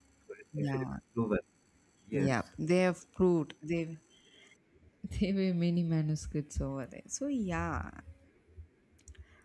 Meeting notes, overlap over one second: none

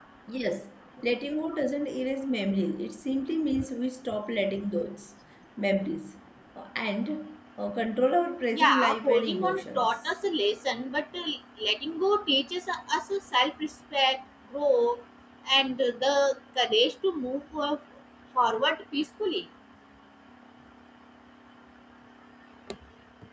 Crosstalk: present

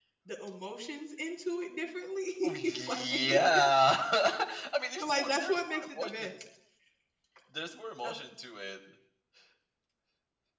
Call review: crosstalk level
present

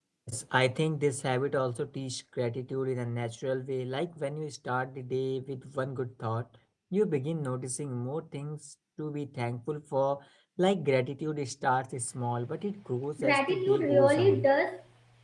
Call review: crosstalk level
present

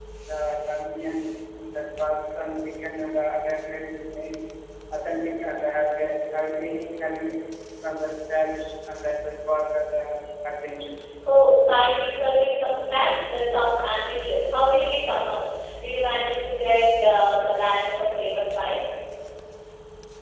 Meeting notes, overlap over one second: none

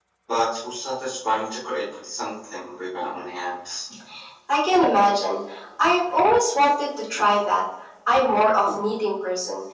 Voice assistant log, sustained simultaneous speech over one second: none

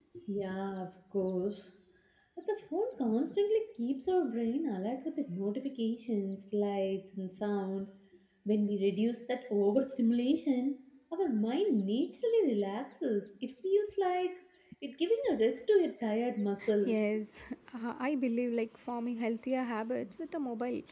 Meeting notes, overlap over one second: none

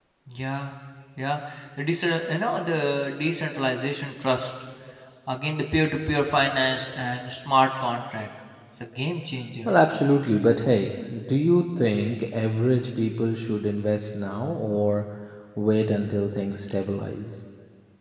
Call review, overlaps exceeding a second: none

